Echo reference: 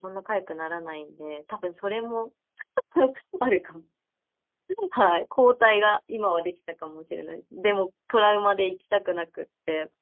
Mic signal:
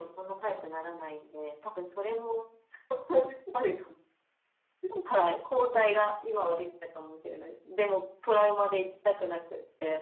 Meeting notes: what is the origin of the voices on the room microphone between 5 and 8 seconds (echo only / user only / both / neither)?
echo only